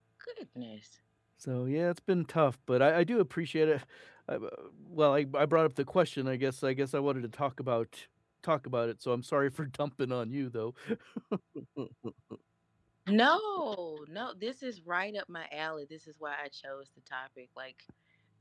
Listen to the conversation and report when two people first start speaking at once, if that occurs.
none

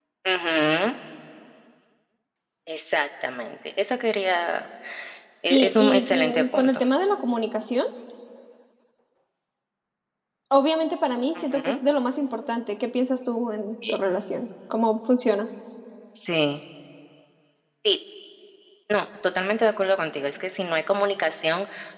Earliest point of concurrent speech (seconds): 5.5 s

